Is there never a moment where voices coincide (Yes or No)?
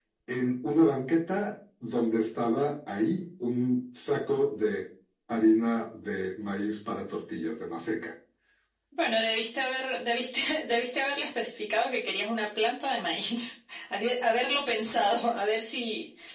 Yes